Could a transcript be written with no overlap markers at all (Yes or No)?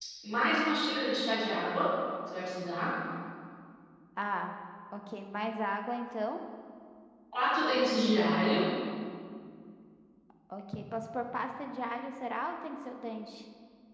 Yes